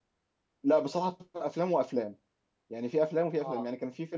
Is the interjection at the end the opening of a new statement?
No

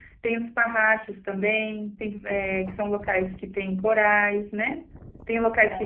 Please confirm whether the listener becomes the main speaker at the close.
No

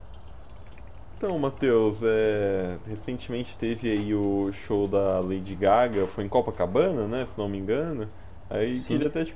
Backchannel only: Yes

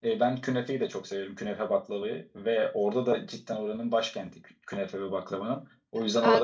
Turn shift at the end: Yes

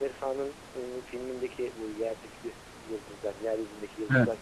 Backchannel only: Yes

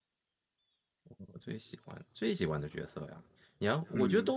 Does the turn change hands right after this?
No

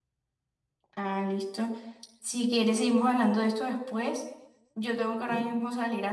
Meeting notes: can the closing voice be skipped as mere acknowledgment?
Yes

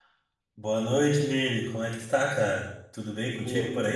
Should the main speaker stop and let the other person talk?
Yes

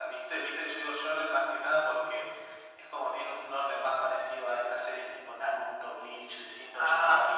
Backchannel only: No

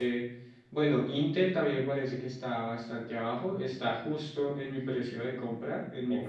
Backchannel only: No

